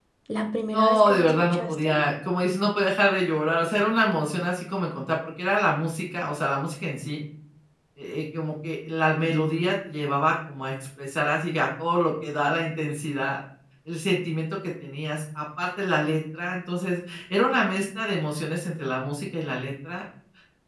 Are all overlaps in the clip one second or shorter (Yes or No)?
No